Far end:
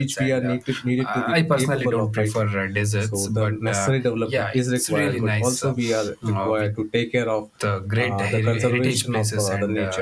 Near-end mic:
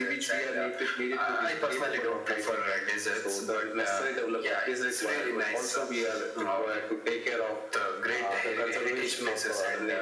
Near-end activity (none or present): none